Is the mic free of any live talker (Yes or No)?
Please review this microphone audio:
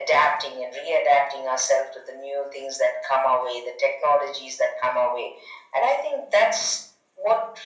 Yes